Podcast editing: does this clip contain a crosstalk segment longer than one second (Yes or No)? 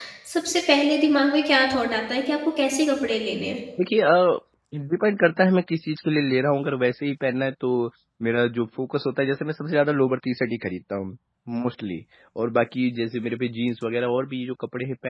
No